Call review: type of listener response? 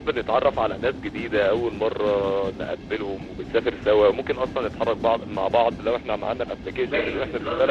taking over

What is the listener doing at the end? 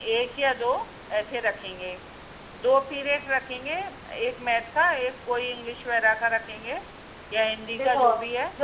taking over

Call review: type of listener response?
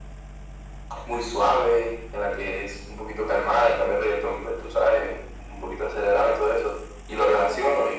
listening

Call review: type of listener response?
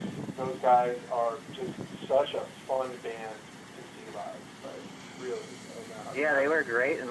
taking over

